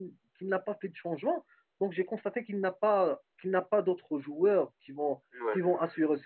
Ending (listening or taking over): listening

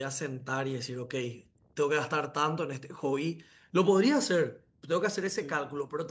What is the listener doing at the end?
listening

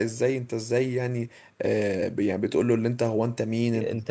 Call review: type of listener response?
listening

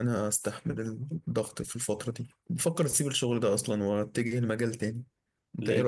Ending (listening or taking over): taking over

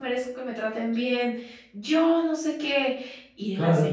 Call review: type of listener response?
listening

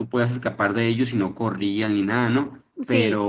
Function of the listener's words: listening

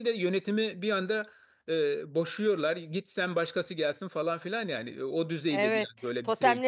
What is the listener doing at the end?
taking over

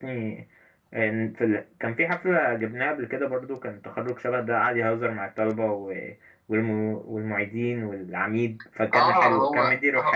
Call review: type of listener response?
taking over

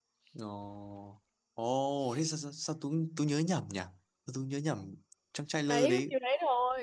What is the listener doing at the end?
taking over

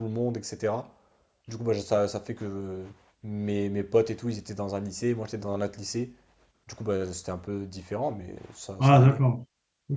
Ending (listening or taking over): taking over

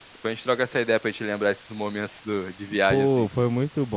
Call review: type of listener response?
taking over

